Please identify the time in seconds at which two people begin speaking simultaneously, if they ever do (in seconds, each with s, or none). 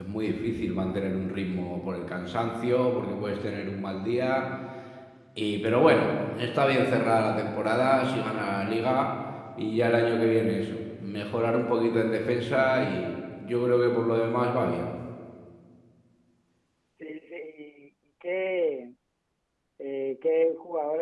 none